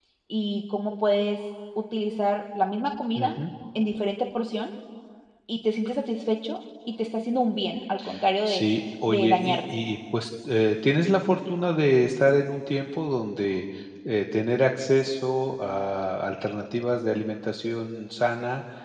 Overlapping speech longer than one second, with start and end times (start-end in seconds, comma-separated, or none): 8.4-9.8